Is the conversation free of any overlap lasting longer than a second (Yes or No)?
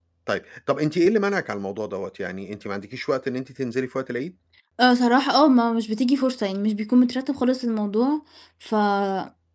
Yes